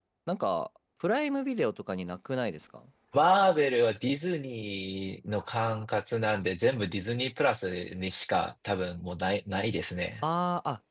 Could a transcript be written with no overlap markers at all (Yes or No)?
Yes